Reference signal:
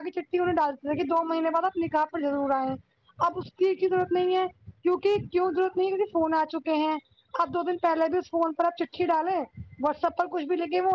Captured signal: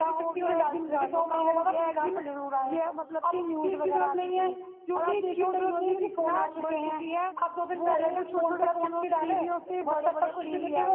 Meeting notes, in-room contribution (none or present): present